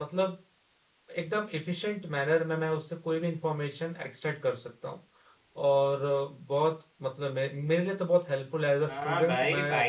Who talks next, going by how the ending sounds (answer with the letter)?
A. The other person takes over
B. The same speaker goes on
A